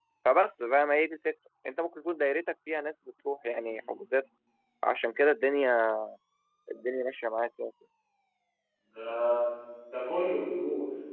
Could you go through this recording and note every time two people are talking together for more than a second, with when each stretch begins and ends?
none

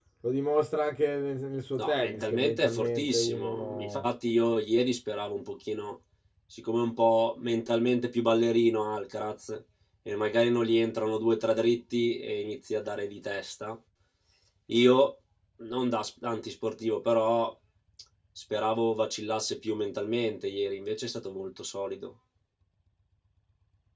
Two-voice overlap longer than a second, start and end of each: 1.8-4.0

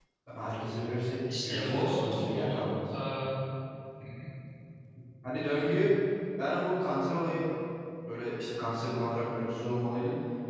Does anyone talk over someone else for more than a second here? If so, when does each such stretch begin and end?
1.4-2.7

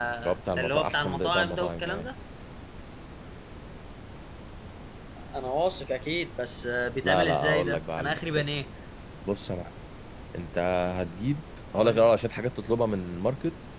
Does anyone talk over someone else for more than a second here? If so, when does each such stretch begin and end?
0.6-2.1, 7.0-8.7

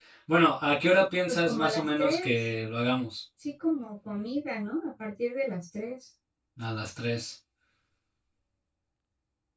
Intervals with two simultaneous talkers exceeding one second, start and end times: 1.3-2.5

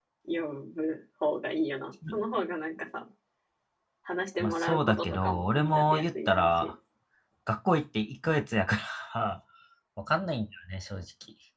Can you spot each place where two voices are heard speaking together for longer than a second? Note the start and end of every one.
4.4-6.7

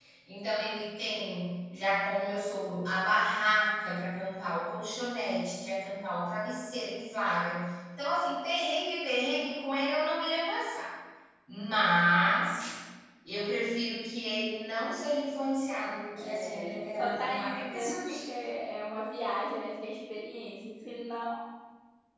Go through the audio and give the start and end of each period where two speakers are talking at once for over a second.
16.2-18.0

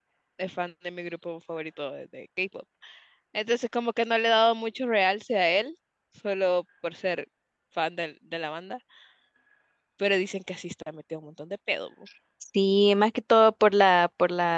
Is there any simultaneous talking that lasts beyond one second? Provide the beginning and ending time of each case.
none

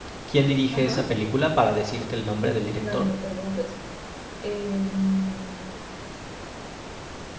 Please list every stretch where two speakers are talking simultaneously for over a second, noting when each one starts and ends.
none

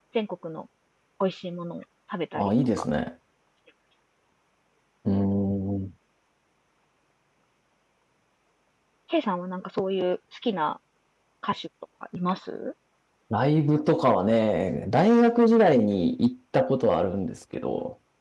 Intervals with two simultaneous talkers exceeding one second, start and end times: none

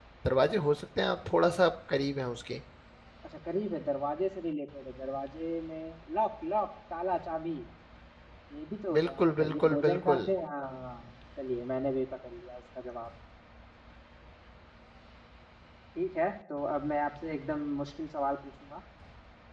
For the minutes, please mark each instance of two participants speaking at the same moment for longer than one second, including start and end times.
9.0-10.2

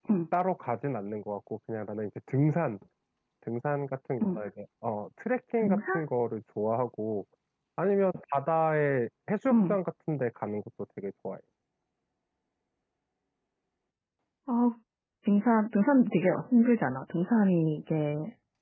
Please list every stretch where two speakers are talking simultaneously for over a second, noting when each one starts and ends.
none

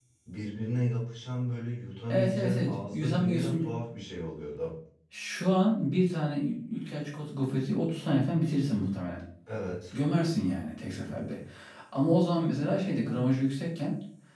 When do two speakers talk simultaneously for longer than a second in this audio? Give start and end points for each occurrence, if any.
2.1-3.7

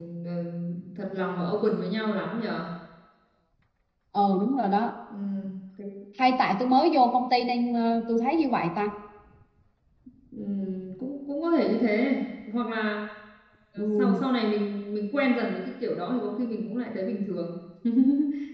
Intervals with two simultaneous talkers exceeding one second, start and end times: none

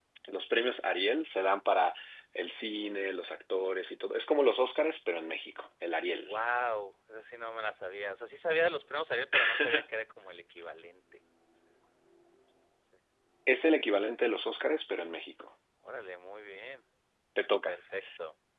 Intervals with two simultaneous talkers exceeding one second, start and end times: none

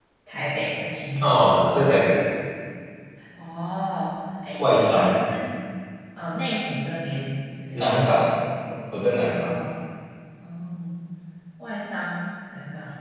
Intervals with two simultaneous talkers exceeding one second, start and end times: none

